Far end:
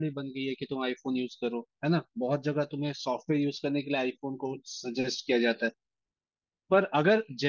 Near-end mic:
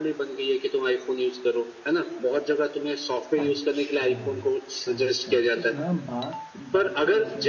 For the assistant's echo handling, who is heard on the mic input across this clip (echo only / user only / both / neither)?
both